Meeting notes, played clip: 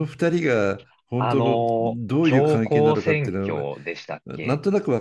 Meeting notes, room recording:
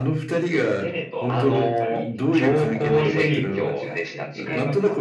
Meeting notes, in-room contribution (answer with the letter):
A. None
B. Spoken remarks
B